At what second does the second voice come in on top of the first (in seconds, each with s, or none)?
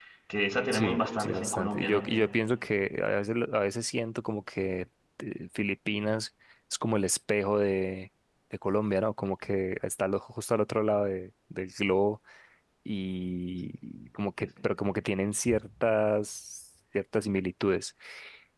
0.7 s